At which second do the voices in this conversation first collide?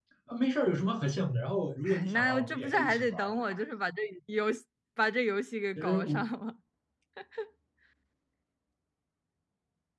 1.8 s

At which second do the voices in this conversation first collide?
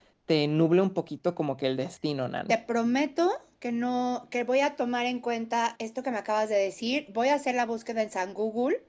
none

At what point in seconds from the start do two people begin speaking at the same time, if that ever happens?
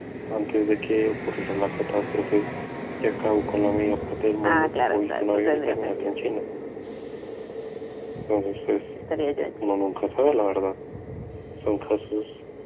4.4 s

